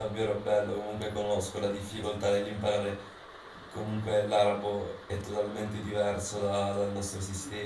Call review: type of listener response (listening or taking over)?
listening